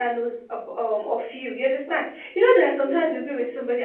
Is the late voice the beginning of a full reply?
No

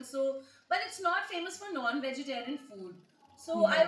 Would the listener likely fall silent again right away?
Yes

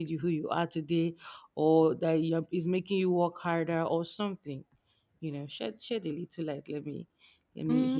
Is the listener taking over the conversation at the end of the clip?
Yes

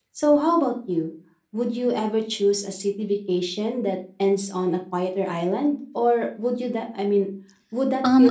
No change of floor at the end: No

